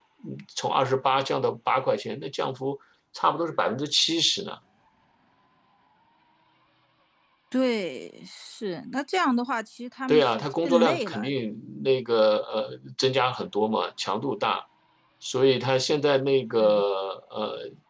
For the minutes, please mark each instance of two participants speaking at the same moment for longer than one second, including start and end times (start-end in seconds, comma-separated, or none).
10.1-11.3